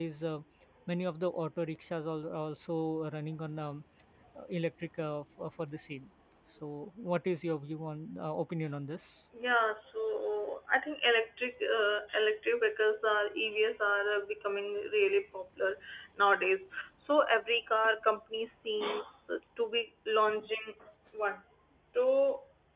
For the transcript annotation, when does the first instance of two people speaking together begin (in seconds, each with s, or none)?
none